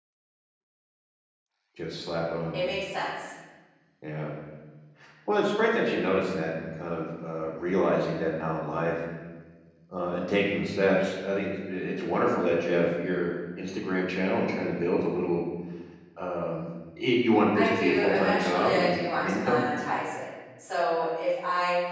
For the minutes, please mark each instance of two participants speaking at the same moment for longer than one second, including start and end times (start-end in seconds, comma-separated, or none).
17.6-19.6